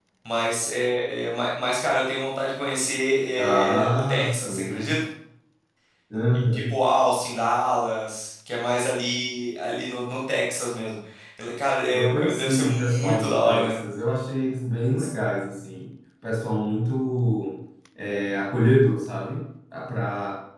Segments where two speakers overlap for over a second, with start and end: 3.4-5.0, 11.9-13.8

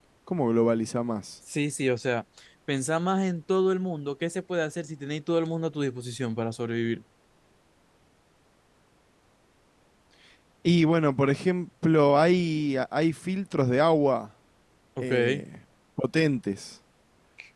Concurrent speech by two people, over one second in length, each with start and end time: none

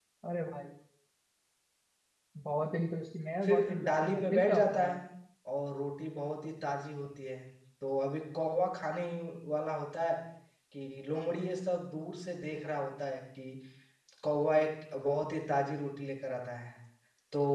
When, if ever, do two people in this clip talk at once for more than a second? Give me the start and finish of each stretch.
3.4-4.9

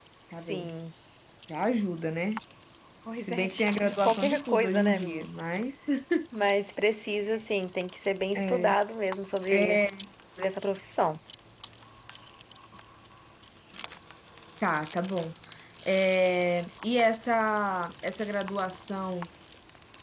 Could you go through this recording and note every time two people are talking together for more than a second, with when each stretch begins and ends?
3.2-5.2

